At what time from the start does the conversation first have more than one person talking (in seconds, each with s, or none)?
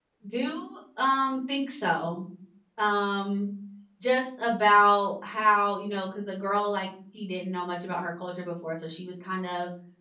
none